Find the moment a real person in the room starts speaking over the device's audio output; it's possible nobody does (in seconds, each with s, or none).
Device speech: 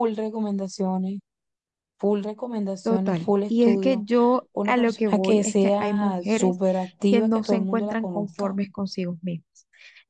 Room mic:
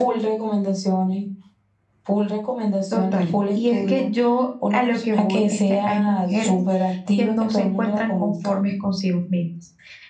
none